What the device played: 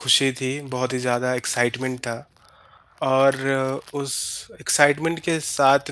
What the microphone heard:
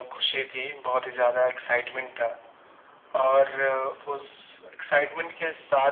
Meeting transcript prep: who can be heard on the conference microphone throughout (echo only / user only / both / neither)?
echo only